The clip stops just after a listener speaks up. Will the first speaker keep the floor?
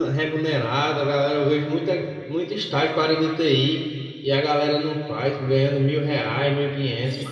No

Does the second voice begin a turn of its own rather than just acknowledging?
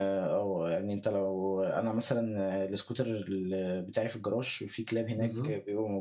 No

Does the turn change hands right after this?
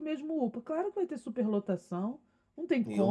Yes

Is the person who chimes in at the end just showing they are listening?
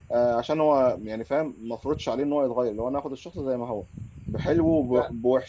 Yes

